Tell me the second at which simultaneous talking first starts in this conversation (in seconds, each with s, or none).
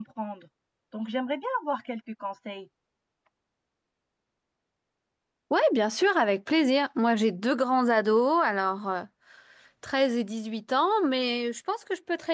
none